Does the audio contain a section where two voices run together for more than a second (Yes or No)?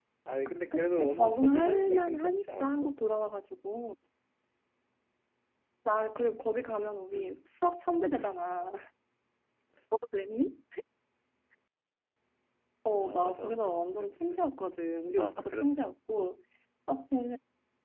Yes